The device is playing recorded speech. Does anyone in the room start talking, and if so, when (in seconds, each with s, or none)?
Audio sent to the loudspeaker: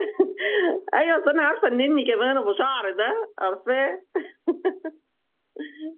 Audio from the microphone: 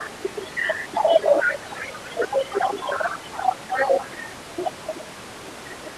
none